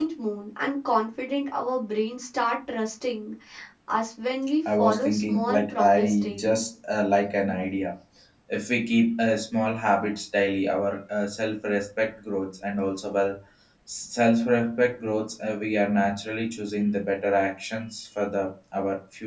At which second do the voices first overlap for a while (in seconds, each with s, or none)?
4.8 s